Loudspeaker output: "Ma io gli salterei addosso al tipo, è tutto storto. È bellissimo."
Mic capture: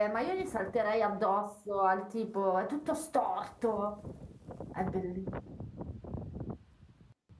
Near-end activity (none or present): none